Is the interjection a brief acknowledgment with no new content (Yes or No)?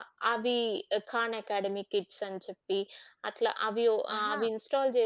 Yes